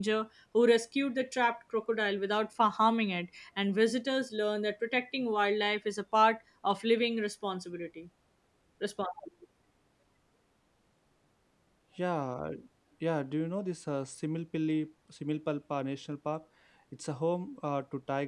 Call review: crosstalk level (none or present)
none